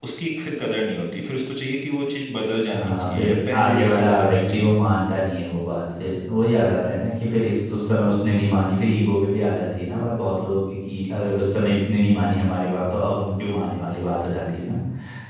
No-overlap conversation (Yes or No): No